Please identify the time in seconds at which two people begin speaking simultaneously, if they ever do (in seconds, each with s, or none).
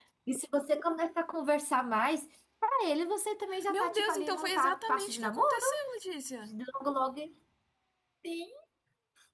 3.5 s